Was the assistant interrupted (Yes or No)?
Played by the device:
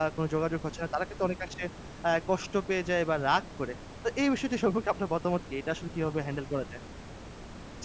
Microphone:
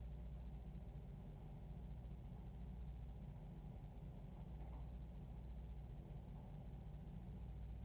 No